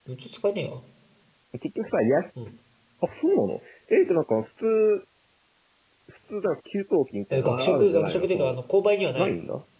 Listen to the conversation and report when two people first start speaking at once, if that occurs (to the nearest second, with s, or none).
7 s